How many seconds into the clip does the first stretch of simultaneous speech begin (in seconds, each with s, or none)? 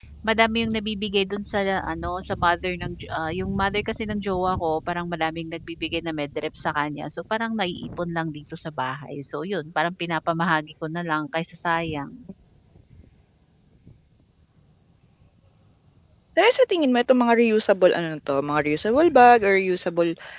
none